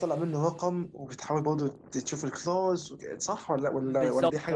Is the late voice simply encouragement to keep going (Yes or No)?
No